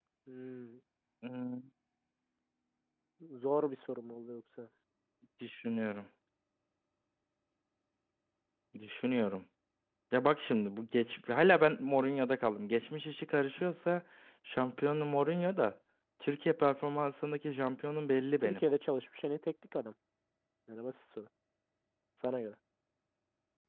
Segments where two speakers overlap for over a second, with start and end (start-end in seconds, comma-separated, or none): none